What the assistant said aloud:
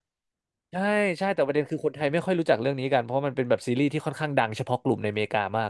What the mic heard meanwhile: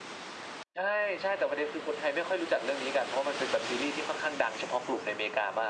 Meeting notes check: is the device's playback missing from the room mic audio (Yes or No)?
No